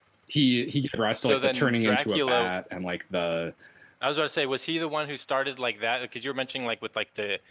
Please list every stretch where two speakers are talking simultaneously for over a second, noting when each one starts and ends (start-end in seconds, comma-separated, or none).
1.2-2.5